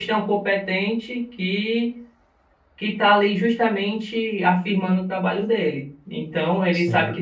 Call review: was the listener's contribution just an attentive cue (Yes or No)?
Yes